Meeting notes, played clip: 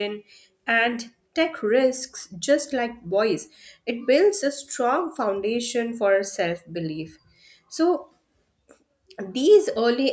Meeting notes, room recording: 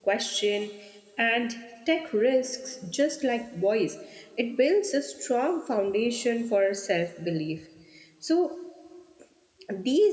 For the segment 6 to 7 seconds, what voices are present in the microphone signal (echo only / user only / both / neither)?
echo only